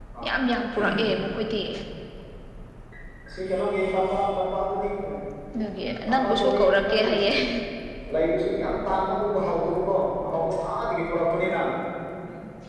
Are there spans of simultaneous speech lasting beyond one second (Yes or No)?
Yes